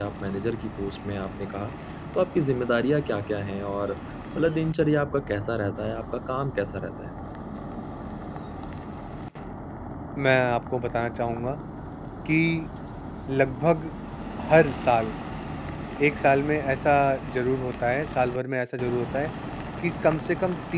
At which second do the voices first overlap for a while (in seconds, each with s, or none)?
none